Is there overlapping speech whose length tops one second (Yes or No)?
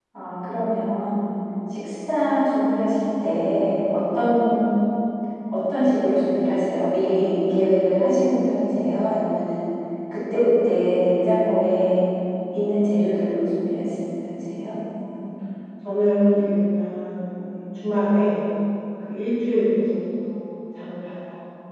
No